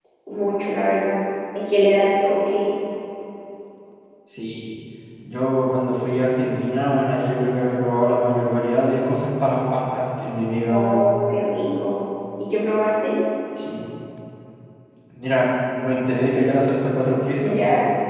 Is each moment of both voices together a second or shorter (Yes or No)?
Yes